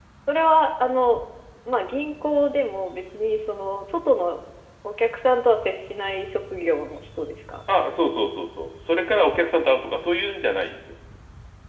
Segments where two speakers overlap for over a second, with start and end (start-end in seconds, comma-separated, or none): none